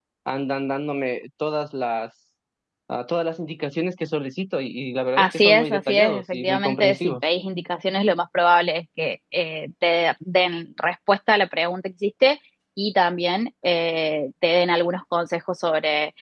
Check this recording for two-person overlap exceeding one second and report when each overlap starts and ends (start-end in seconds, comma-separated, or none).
5.2-7.2